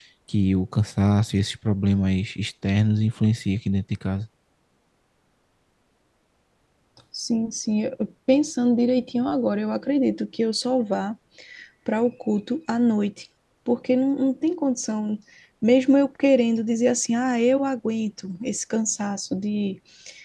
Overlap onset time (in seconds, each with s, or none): none